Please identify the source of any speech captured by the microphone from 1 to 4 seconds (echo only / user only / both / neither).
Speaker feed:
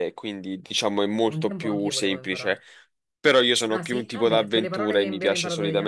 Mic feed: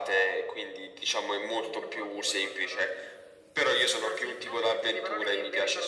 echo only